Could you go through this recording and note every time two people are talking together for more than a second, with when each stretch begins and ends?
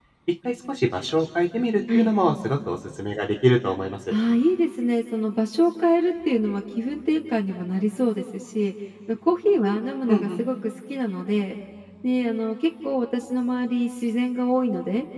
none

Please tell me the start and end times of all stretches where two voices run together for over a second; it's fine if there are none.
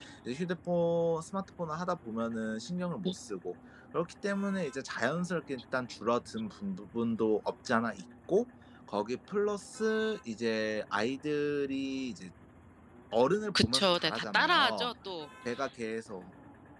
13.6-14.9

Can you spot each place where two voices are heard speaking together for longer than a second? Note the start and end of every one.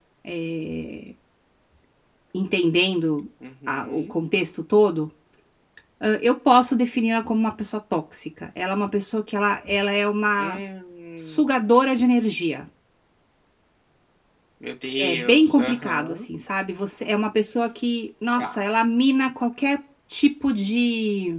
15.0-16.3

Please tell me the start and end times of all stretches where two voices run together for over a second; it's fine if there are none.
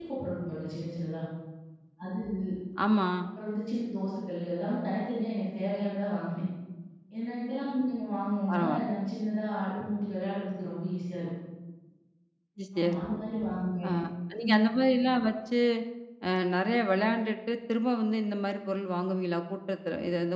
none

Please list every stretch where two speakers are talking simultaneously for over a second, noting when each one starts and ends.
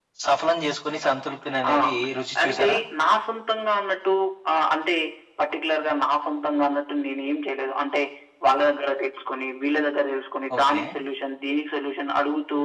none

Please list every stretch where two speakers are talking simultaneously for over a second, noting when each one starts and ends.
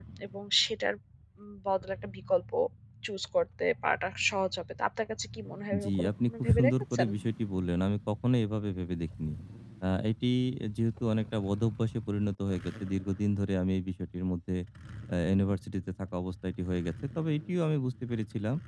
5.8-7.1

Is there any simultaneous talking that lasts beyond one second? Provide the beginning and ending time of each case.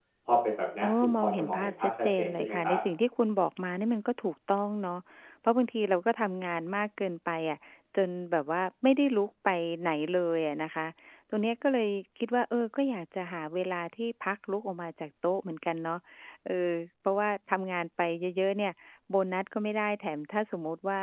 0.8-2.8

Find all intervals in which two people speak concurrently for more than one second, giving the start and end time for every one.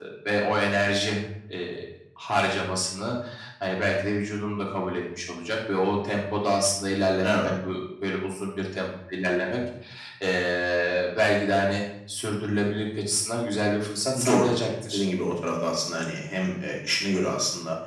none

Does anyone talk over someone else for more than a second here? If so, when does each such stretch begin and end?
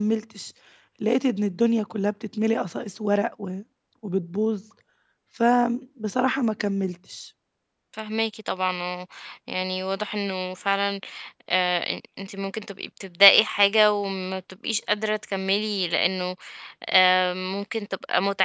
none

